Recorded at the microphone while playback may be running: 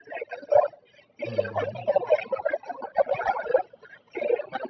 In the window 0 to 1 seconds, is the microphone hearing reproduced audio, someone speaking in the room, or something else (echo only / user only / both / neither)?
echo only